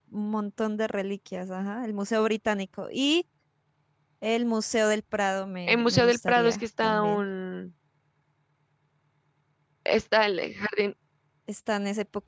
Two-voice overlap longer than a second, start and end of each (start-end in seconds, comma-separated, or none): 5.7-7.2